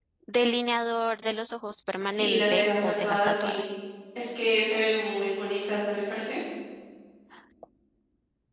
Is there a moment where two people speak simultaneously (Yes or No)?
Yes